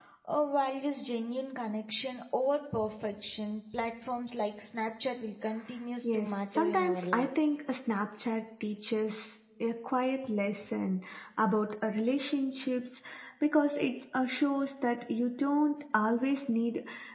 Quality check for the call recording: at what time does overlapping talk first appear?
6.0 s

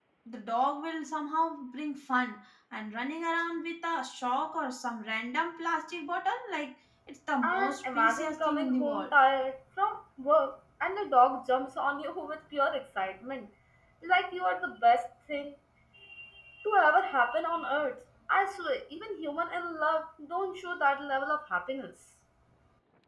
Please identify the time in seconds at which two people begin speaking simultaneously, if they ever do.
7.4 s

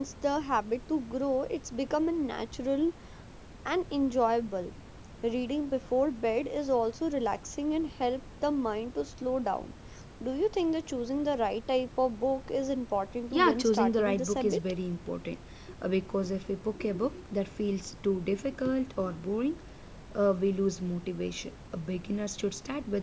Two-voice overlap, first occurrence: 13.3 s

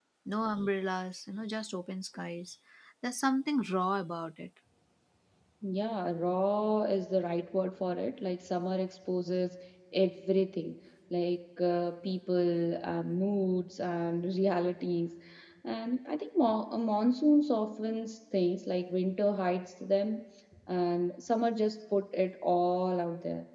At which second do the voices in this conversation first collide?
none

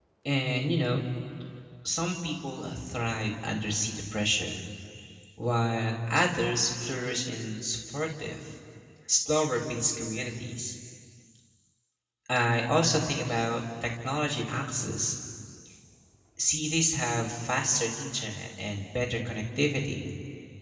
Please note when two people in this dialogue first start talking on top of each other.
none

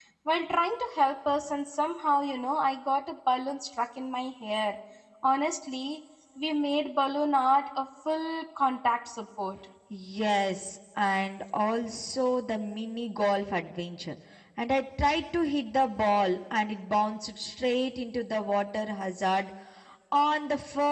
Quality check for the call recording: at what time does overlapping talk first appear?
none

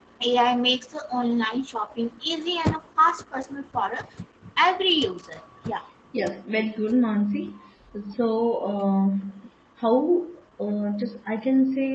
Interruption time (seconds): none

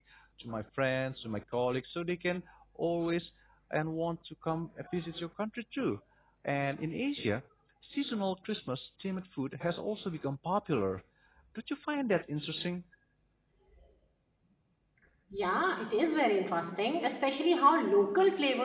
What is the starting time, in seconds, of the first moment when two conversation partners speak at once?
none

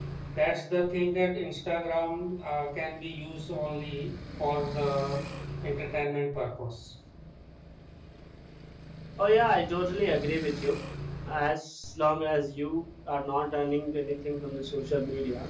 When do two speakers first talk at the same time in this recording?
none

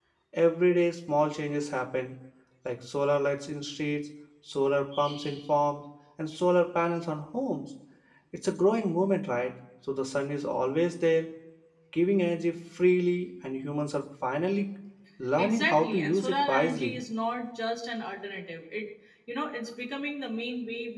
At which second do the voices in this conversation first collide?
15.4 s

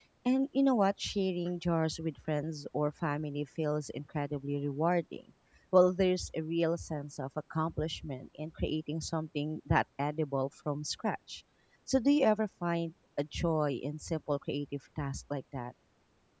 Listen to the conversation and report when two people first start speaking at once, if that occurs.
none

